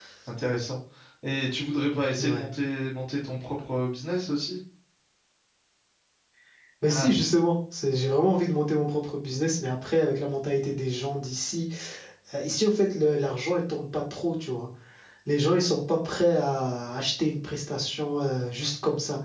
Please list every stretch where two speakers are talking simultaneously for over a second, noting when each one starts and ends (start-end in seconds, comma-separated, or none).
none